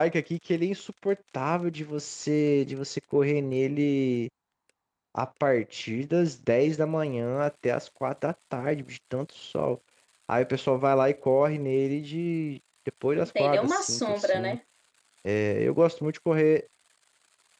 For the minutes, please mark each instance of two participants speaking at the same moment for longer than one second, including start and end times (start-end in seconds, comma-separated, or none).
13.2-14.6